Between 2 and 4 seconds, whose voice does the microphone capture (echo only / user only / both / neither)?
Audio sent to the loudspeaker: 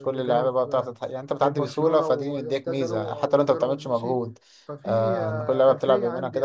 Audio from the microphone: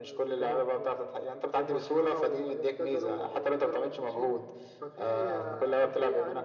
echo only